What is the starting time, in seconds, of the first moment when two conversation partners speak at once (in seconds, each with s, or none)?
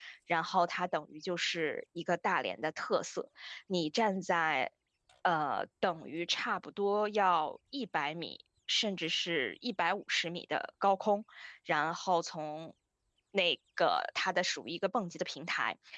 none